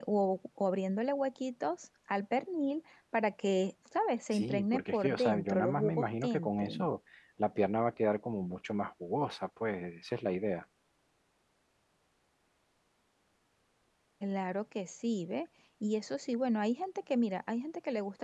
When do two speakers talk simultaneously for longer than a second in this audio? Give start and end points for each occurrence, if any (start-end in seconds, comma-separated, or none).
4.3-6.9